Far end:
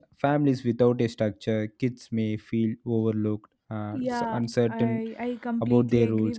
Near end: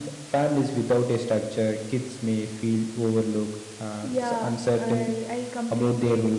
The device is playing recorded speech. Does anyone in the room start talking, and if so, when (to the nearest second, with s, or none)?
none